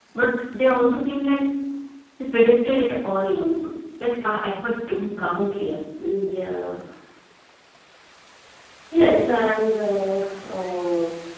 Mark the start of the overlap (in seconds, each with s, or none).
none